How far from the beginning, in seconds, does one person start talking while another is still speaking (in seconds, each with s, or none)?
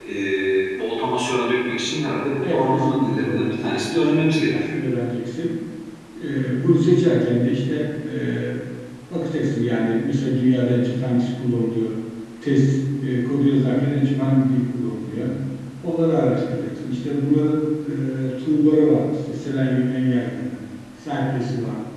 2.4 s